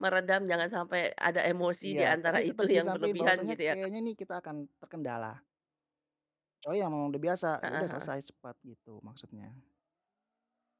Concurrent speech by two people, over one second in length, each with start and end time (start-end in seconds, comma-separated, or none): 1.8-3.8